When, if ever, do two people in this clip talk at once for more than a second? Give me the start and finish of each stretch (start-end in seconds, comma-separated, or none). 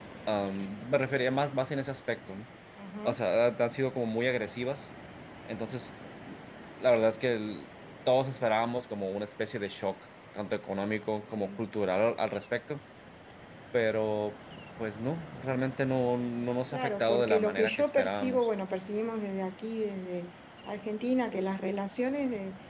16.7-18.5